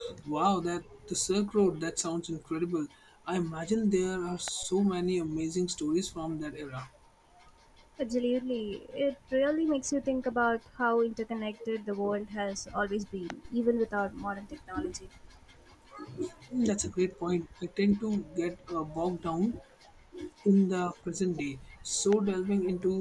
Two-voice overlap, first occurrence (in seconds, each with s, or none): none